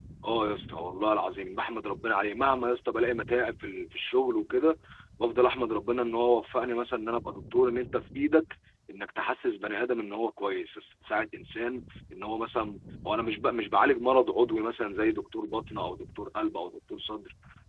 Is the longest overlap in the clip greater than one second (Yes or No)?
No